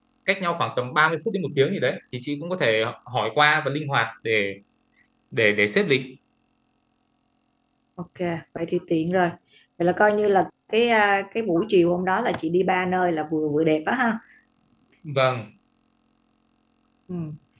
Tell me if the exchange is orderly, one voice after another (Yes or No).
Yes